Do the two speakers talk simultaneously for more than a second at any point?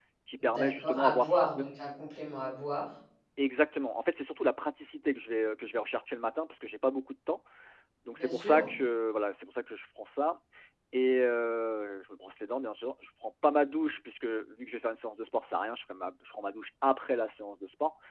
Yes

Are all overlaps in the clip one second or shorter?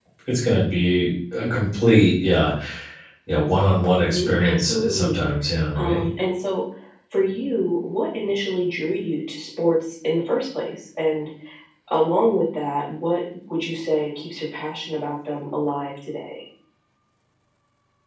No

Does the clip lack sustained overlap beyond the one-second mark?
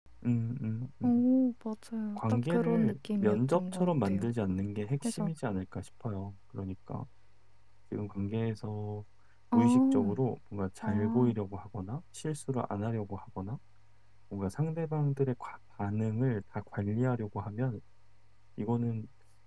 No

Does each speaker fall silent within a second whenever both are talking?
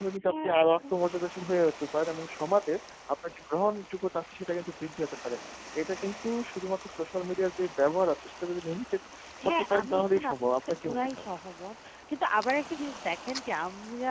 No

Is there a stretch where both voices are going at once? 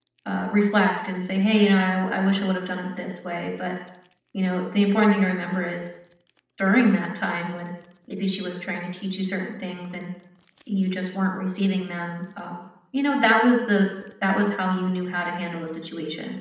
No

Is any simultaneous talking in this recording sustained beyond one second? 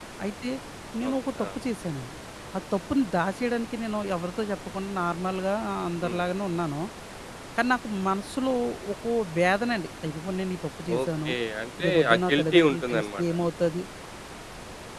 Yes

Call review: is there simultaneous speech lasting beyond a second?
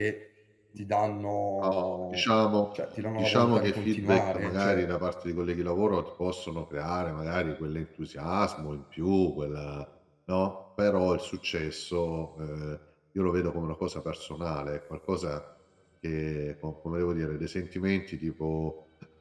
Yes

